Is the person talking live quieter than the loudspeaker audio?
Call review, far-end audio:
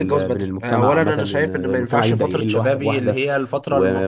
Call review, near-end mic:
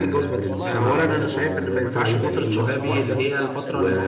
Yes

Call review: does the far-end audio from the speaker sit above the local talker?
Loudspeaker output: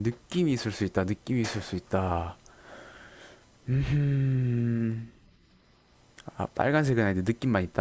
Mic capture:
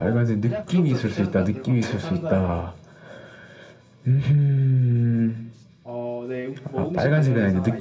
Yes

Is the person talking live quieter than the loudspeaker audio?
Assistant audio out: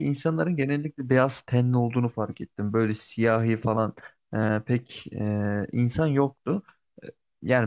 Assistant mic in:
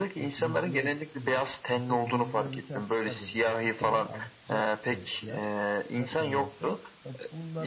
Yes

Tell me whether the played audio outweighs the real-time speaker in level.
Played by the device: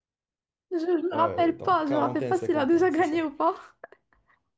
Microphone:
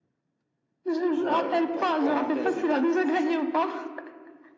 Yes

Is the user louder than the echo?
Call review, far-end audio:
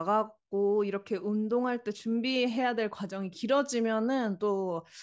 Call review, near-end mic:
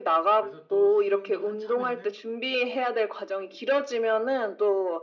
No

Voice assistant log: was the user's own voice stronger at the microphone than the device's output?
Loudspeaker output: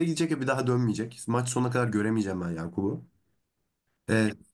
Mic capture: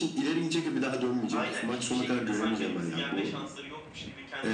No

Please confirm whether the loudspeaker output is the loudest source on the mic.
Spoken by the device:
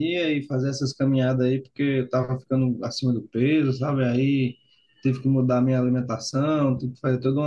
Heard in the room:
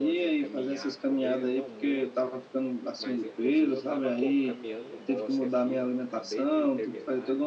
Yes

